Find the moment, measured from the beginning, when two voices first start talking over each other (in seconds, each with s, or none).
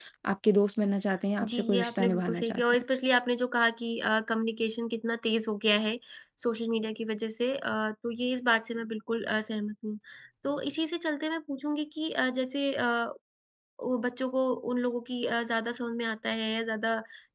1.4 s